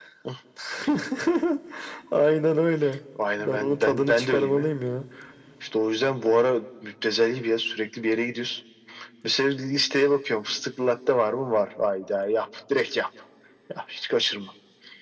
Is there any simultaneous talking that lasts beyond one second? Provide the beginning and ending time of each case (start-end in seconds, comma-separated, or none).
3.4-4.7